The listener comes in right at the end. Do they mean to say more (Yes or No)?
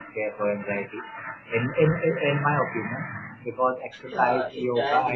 Yes